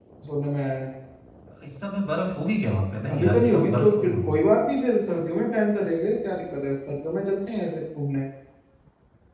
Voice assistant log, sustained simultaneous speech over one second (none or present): present